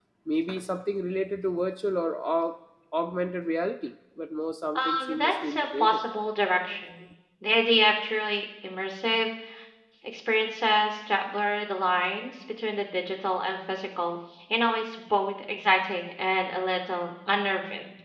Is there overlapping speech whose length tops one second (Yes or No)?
Yes